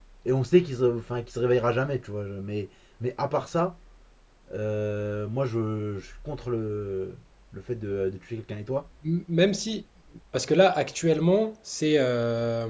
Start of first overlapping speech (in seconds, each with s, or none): none